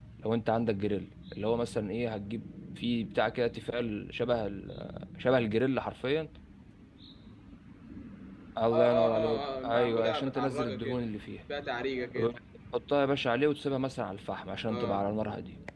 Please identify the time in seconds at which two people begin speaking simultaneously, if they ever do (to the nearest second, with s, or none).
9 s